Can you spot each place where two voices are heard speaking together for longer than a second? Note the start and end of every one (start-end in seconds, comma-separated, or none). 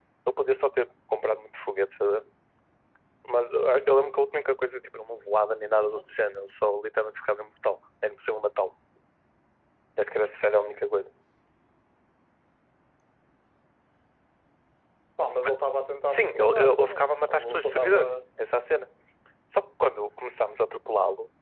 16.1-18.1